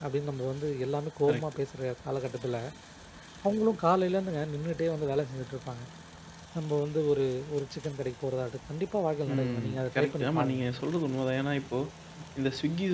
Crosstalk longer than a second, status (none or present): present